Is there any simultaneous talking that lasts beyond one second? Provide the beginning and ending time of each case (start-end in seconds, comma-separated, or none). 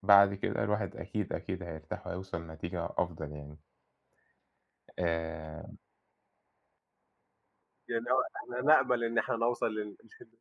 none